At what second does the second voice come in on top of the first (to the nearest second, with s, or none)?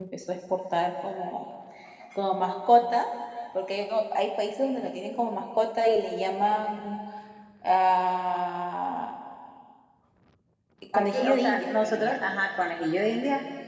11 s